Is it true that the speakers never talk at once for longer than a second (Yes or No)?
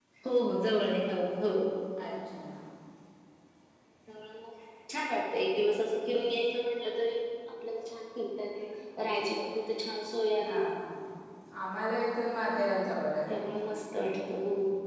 Yes